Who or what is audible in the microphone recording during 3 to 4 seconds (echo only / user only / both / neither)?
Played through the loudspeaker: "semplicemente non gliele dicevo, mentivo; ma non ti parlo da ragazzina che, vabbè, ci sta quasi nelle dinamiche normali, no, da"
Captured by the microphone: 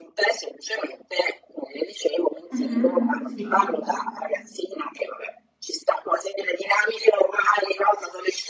both